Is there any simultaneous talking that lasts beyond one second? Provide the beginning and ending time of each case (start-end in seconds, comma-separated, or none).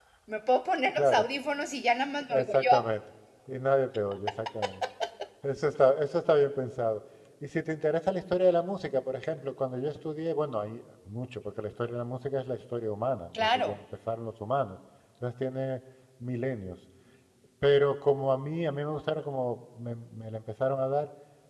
none